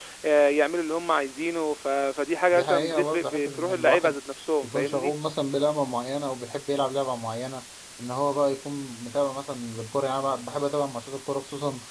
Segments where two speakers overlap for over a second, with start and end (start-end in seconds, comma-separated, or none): 2.5-4.2